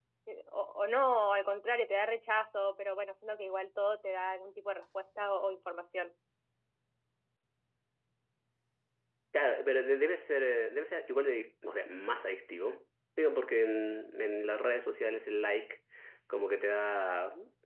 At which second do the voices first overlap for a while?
none

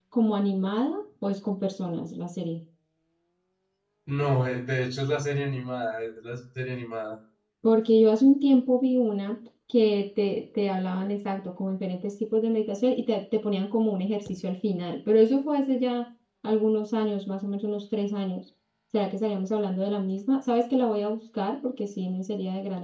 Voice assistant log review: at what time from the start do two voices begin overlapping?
none

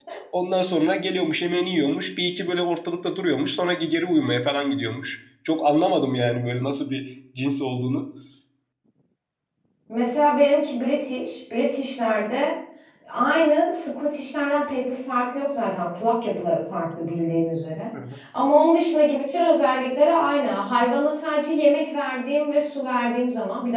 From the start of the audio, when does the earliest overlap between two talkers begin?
none

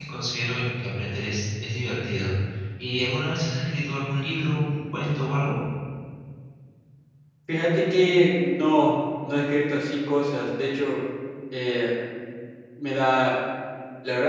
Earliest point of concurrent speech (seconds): none

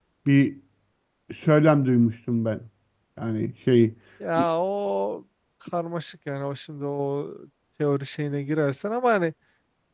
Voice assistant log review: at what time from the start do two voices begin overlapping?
none

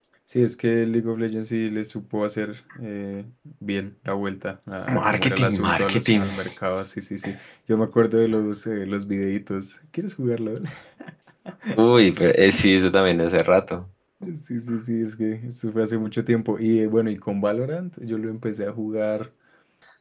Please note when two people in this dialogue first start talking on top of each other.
4.9 s

